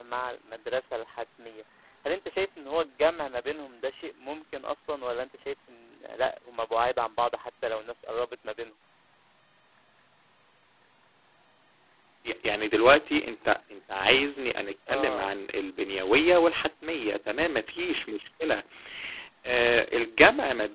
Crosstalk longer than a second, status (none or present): none